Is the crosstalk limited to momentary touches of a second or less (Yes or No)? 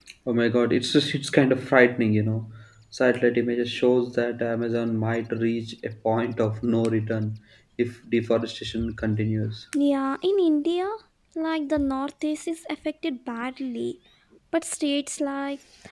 Yes